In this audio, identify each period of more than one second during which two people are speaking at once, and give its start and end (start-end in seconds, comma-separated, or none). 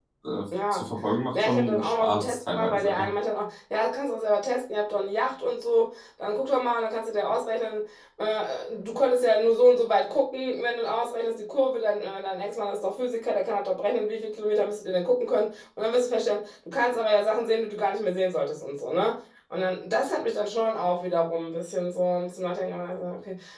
1.3-3.1